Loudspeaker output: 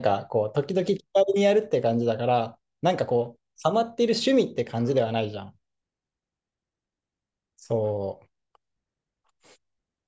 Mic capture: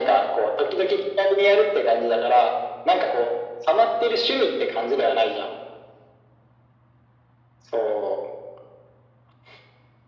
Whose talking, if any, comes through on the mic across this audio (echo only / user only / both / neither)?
echo only